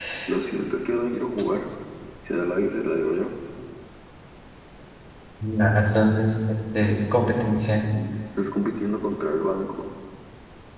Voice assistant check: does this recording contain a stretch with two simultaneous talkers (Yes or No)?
No